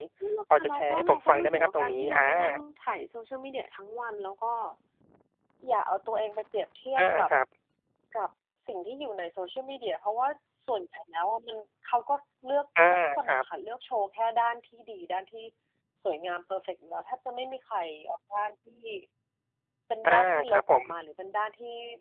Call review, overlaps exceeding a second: present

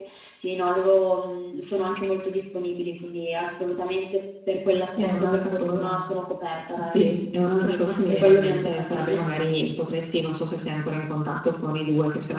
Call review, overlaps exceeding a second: present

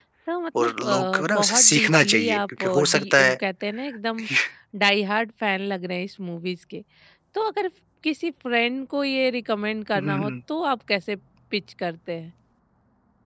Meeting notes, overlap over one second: present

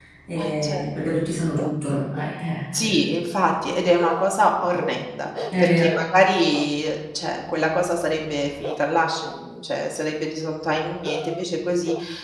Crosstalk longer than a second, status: none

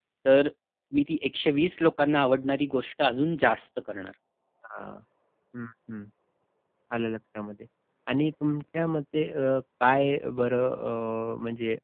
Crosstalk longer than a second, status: none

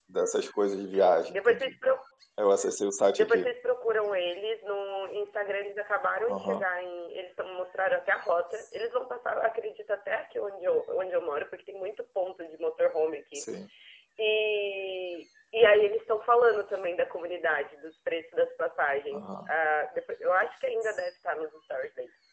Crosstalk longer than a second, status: none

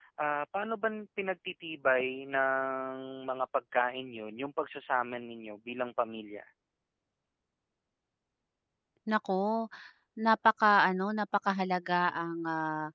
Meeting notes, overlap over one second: none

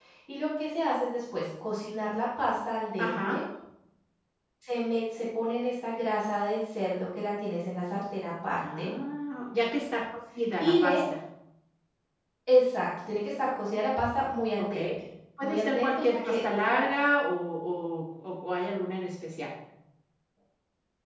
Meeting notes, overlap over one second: present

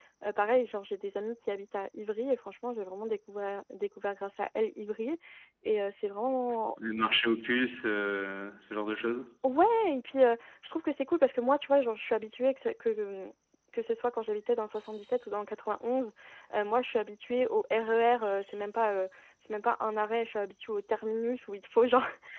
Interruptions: none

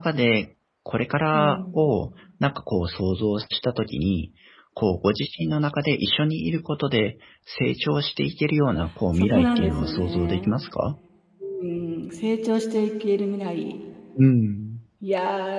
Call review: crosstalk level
present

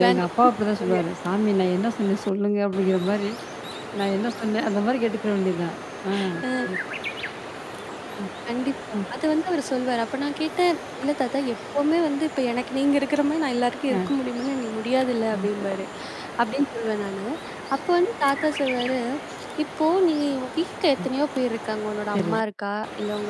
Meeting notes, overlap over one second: none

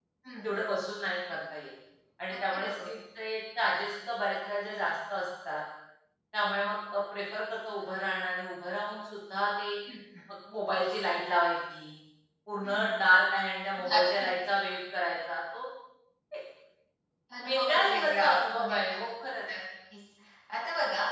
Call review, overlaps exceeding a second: present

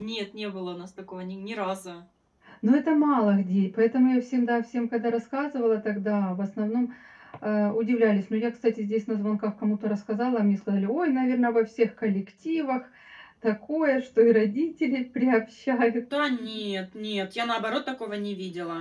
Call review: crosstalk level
none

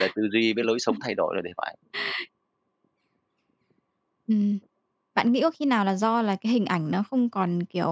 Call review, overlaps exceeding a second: none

